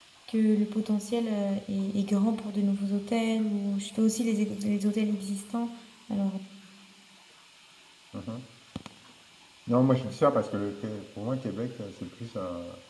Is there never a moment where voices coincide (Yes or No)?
Yes